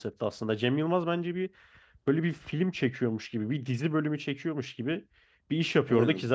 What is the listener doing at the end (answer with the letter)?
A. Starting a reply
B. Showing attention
B